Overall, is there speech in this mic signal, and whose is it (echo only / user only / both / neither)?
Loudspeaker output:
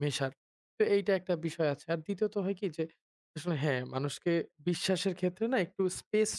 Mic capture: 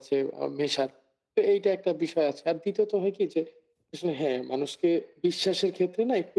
echo only